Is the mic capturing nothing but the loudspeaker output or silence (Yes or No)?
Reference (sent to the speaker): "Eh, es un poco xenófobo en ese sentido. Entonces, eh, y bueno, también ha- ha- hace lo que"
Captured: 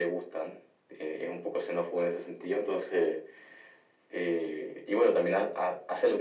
Yes